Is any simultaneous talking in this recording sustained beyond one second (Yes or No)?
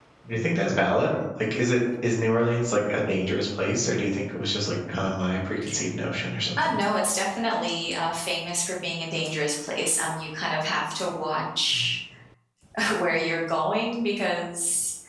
No